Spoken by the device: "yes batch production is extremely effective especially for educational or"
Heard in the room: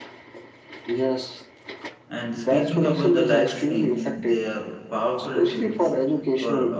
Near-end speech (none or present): present